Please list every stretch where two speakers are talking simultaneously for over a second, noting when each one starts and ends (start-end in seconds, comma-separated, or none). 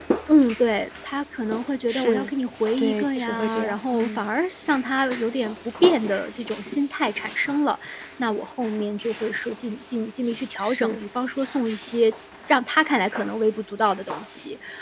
2.8-4.2